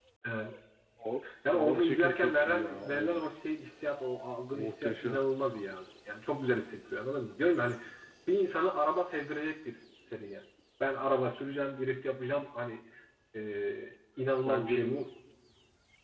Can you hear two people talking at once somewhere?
Yes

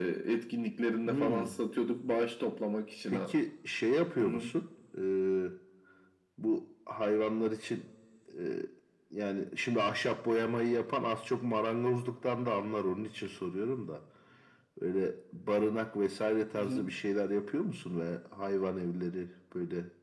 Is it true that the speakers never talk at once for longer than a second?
Yes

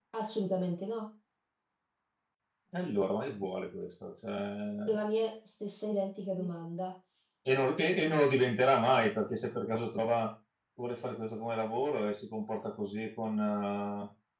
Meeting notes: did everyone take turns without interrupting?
Yes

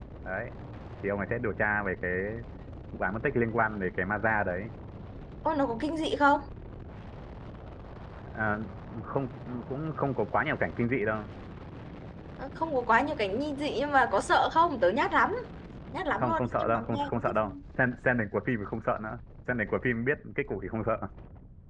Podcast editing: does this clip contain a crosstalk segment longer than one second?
Yes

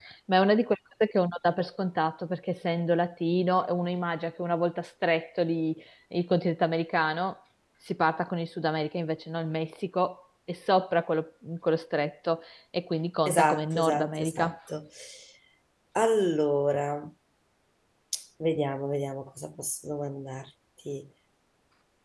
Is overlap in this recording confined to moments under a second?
No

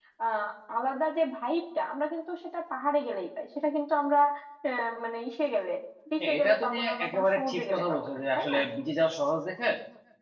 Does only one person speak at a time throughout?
No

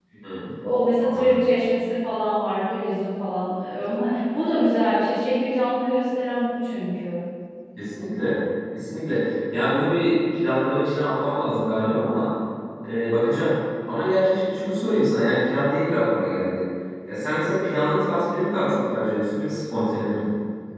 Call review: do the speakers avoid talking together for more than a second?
Yes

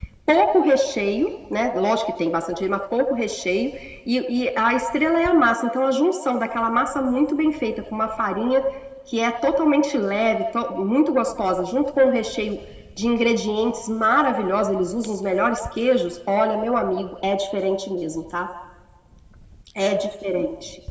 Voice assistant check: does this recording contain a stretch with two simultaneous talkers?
No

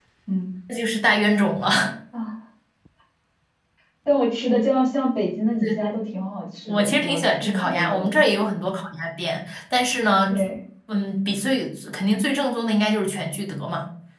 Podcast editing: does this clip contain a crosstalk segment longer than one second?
Yes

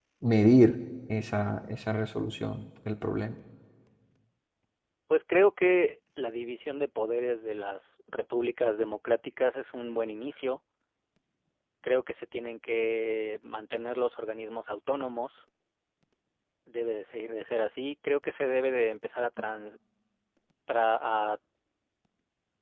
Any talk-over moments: No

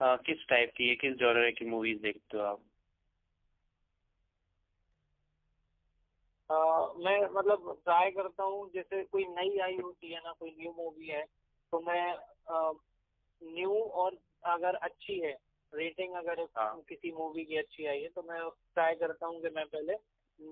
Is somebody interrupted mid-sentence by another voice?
No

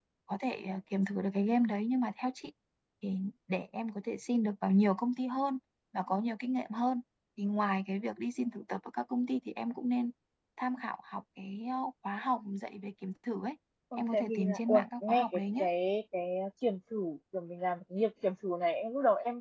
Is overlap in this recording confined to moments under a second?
No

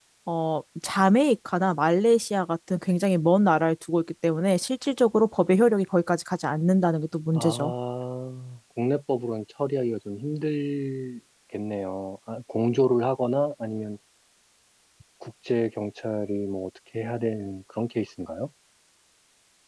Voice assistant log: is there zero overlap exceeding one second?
Yes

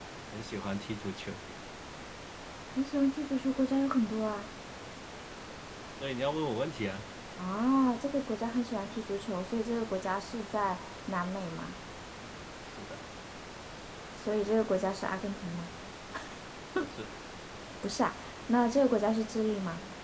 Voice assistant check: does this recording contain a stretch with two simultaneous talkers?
No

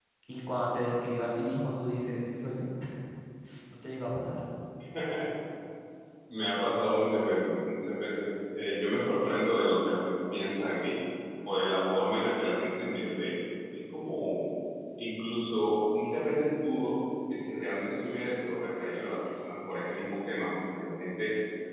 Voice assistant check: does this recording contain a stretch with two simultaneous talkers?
No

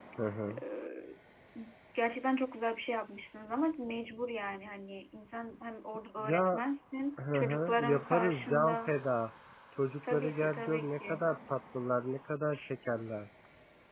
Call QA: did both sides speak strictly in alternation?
No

